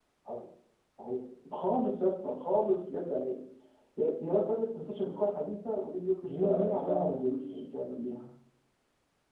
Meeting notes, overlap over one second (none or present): present